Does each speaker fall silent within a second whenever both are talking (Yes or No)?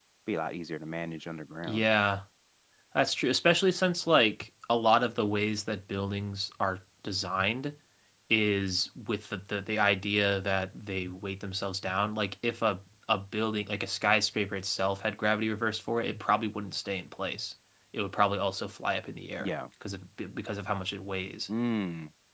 Yes